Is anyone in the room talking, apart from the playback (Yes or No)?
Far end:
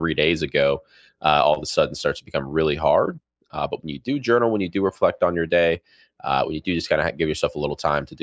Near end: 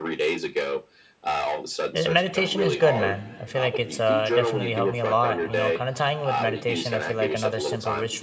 Yes